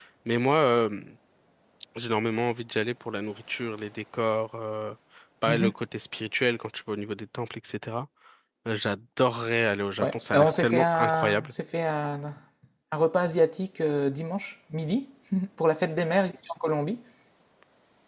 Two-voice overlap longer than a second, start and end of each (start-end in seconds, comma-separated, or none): 10.0-11.5